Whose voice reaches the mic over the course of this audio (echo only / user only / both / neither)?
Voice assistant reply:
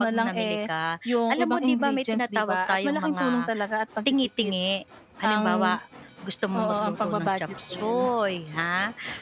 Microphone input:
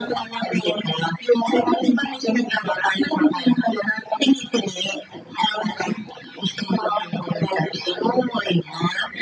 echo only